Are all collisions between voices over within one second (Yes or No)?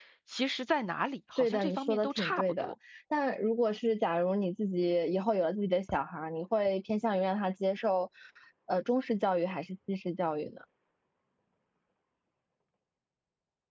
No